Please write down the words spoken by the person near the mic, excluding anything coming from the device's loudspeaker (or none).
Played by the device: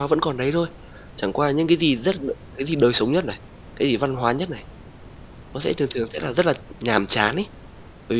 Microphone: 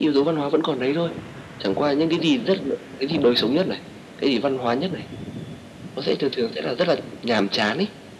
none